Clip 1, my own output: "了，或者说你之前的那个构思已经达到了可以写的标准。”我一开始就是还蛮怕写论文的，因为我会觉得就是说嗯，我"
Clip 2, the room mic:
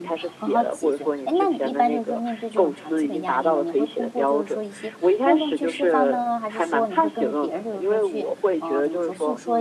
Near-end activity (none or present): present